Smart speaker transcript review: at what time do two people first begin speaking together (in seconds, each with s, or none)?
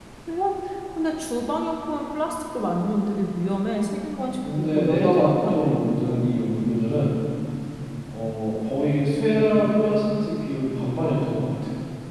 4.4 s